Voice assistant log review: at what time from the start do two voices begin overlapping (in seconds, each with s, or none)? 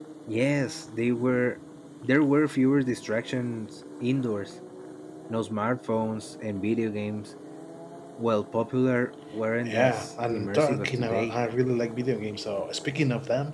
9.6 s